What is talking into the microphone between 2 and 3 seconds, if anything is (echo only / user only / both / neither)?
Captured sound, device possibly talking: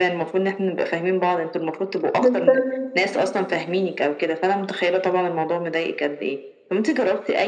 both